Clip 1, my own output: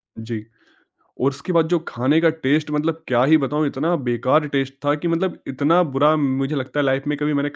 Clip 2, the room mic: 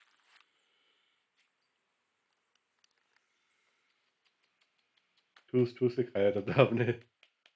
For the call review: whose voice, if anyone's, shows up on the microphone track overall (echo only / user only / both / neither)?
user only